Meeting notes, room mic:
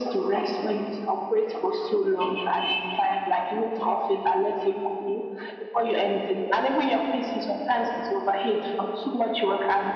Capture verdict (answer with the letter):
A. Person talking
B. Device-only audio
B